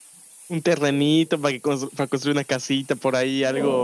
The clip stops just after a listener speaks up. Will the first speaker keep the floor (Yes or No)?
No